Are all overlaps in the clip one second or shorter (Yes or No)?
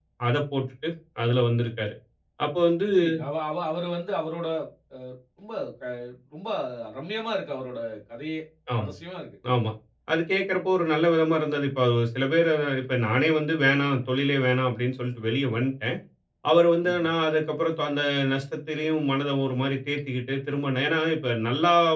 Yes